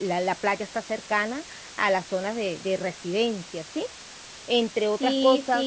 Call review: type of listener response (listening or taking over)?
taking over